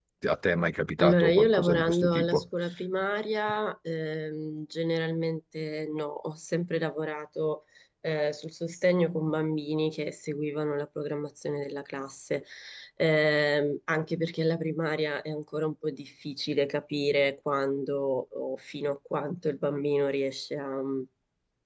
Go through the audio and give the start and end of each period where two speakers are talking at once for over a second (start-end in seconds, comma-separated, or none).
1.0-2.5